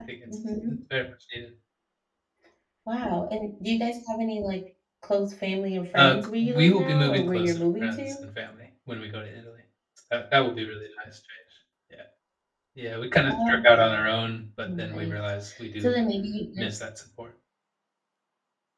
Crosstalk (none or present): present